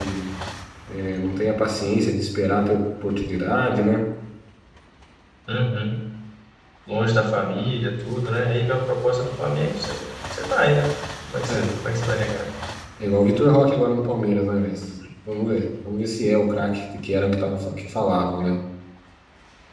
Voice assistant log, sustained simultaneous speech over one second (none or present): none